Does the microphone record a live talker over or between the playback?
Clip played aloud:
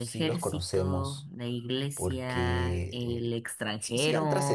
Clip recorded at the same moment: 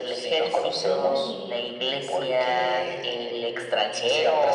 Yes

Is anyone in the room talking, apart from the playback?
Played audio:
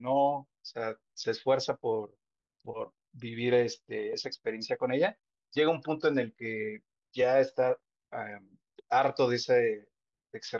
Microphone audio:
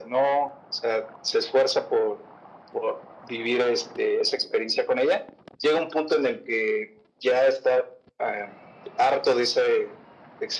No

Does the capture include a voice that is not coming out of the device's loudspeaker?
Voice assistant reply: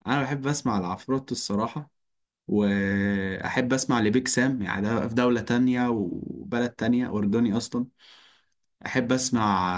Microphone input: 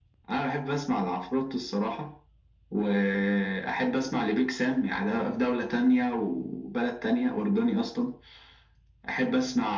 No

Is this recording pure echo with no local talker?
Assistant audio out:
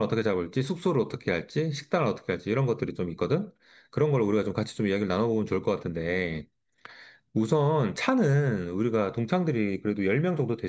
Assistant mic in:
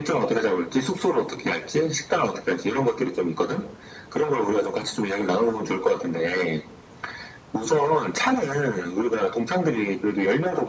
Yes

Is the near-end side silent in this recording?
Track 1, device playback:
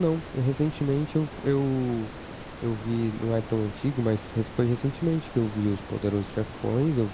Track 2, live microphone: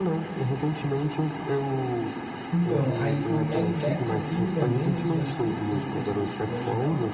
No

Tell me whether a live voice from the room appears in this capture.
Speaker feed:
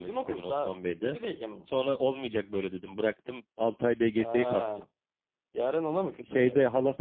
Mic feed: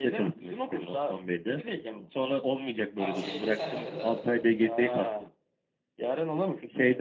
Yes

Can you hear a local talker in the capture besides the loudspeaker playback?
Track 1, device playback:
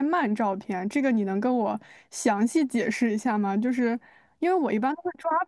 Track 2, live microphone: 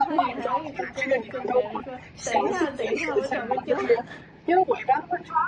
Yes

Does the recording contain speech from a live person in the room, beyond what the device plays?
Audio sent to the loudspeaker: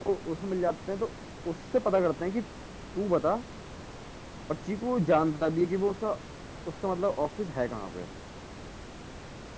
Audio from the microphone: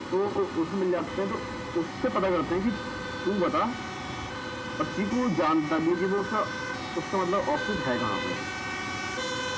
No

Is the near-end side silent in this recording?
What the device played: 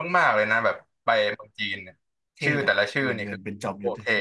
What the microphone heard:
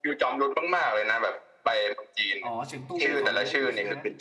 No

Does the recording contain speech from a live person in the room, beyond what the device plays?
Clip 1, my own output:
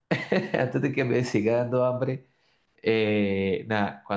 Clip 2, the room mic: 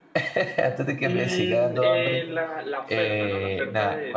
Yes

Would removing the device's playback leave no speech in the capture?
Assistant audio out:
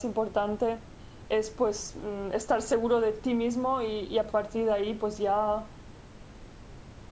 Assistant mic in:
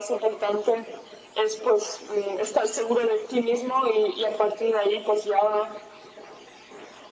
Yes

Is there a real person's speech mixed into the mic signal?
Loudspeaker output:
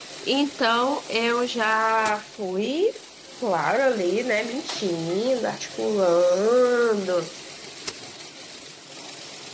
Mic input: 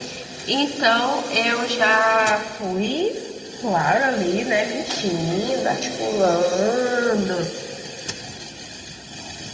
No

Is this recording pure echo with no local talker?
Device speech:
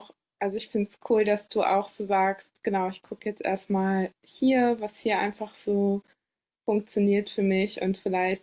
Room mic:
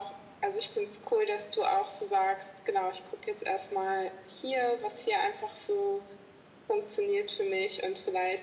Yes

